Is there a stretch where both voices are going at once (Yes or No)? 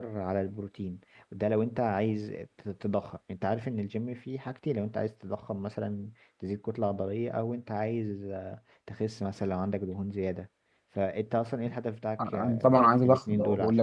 Yes